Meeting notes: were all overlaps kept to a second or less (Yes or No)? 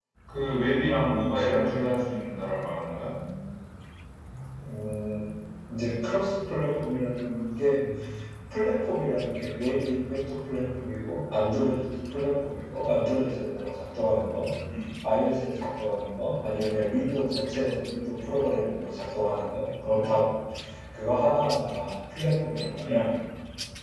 Yes